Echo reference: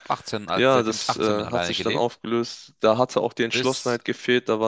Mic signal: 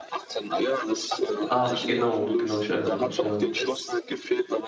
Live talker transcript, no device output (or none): Ach, genau, genau, ich erinnere mich, ja.